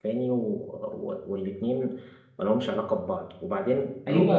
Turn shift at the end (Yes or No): Yes